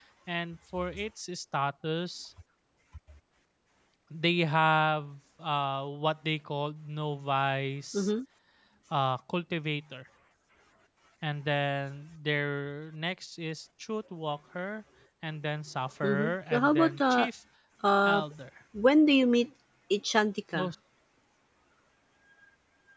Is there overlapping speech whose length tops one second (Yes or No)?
Yes